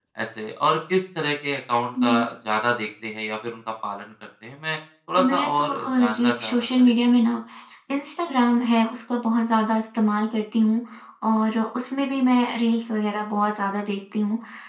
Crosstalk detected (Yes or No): Yes